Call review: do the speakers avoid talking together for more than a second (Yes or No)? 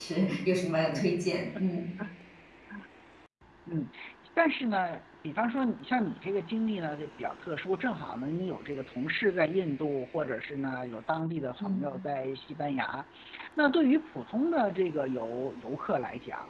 Yes